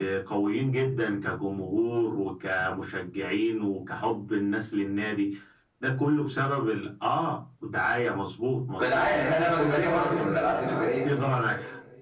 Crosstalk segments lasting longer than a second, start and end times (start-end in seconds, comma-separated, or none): 8.8-10.6